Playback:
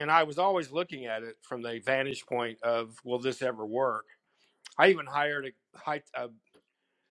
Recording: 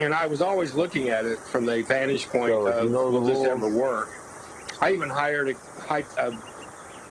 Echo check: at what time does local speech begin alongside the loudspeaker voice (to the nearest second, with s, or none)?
2 s